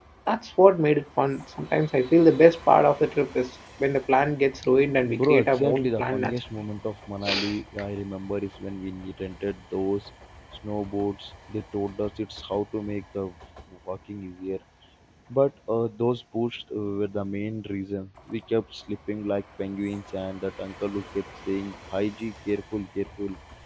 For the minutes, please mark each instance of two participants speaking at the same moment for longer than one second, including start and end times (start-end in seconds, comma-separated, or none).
5.1-6.4